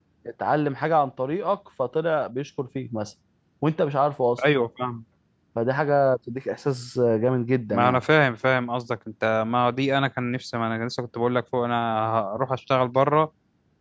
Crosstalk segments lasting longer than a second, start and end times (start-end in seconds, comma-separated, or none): none